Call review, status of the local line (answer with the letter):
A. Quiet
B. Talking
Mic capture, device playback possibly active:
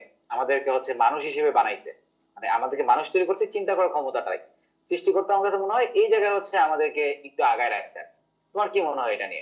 A